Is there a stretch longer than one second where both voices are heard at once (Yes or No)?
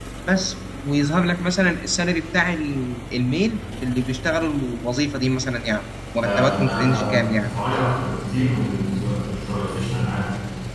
Yes